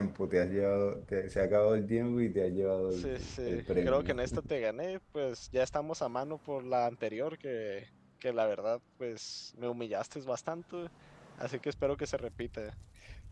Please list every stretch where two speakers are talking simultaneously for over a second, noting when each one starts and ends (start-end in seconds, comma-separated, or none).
2.9-4.2